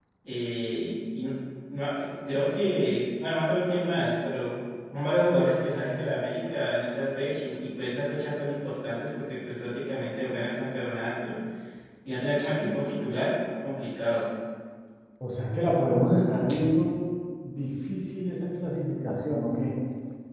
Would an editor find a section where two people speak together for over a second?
No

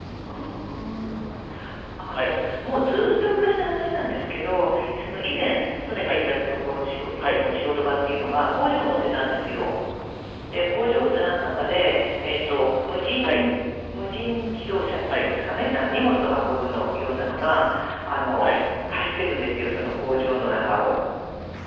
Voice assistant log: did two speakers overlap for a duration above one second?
No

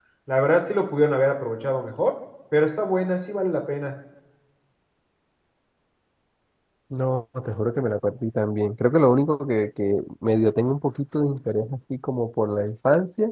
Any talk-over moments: No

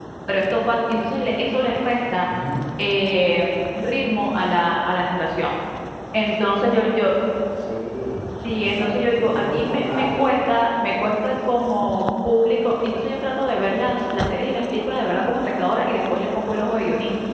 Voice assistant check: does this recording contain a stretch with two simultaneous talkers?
Yes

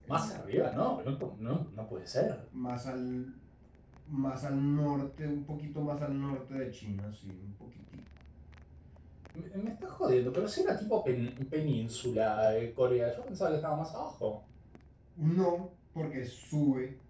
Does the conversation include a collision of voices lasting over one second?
No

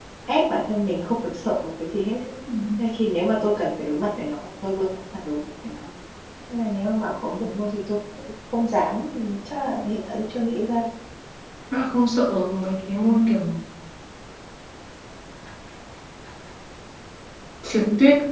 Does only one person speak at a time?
Yes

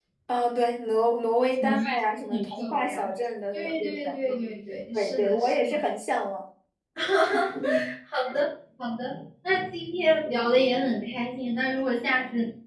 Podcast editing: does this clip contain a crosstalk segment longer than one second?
Yes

